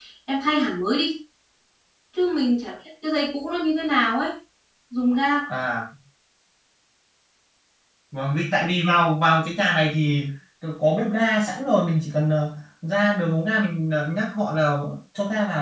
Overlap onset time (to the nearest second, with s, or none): none